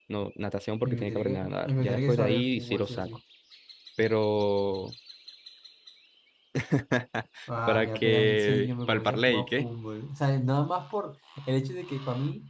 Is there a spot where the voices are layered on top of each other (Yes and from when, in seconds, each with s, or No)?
Yes, from 0.8 s